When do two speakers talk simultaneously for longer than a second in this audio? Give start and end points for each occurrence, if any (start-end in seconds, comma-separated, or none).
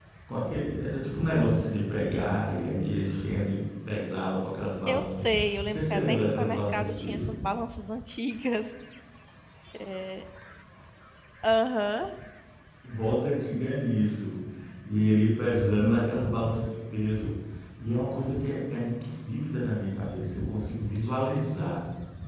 5.6-7.3